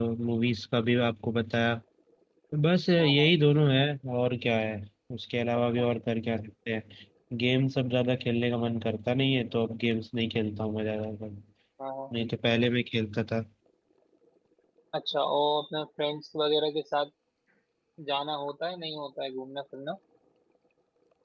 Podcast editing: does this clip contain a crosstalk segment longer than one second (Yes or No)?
No